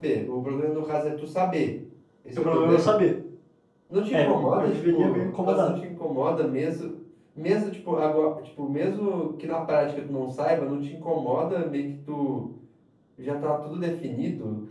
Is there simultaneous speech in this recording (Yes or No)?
Yes